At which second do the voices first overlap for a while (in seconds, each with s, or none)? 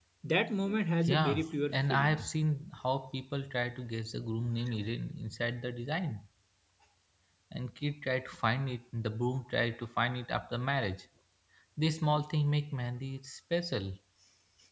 1.0 s